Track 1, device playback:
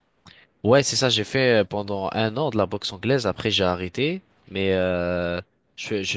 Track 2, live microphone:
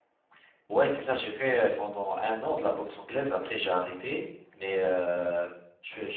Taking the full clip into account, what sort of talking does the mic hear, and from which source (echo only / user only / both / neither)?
echo only